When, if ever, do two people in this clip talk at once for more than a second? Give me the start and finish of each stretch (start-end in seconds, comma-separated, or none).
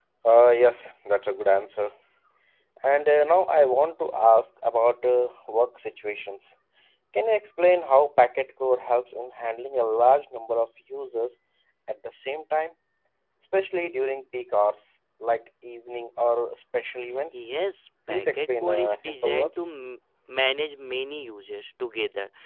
18.1-19.6